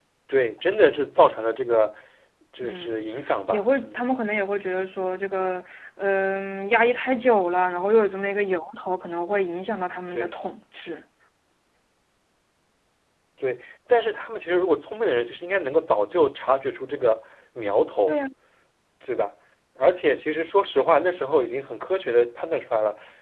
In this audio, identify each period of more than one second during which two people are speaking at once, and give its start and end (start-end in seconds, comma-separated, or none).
none